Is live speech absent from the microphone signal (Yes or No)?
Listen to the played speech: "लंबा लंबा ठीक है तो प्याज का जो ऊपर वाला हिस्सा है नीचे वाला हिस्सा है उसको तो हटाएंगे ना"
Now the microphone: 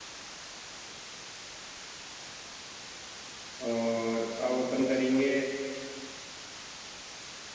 No